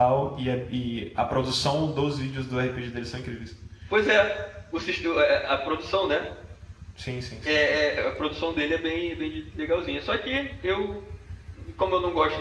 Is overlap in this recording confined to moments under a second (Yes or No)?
Yes